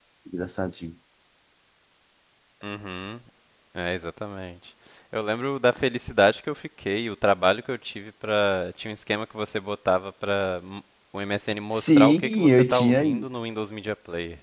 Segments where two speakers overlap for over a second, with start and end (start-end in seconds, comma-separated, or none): 11.7-13.2